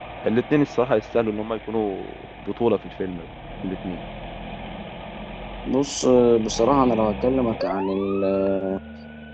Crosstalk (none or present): none